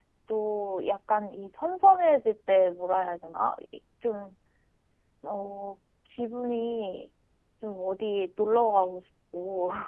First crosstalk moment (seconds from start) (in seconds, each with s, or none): none